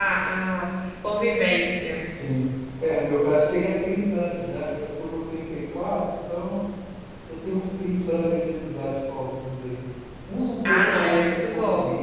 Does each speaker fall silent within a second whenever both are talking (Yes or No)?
No